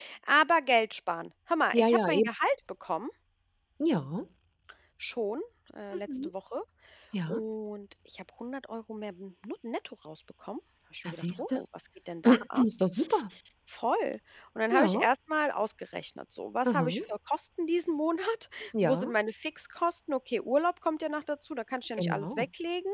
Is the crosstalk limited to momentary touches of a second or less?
Yes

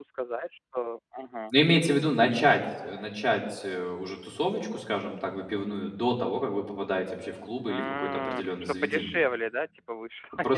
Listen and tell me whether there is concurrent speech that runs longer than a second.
Yes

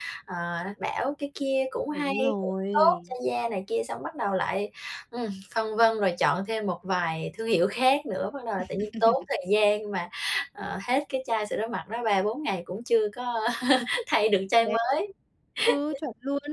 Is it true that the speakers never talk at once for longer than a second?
No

